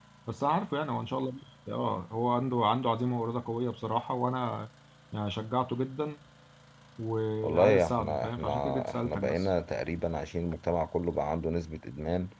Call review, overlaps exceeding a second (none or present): present